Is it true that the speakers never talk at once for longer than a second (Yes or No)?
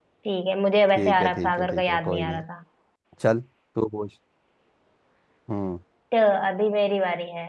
No